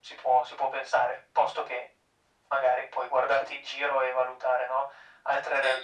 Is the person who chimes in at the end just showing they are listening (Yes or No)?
No